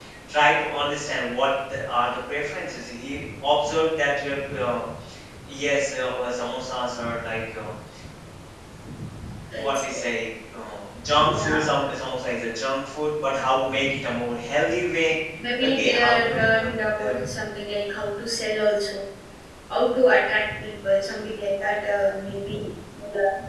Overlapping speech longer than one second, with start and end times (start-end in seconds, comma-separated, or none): 15.6-17.1